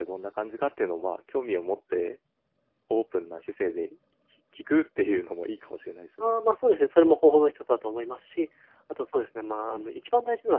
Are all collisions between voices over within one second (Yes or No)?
Yes